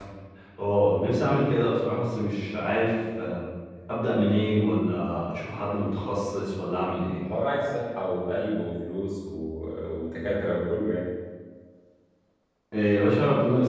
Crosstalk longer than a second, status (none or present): none